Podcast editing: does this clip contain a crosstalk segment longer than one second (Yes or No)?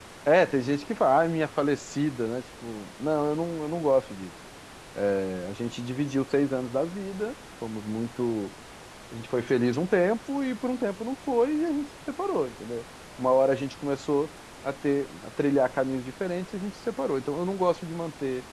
No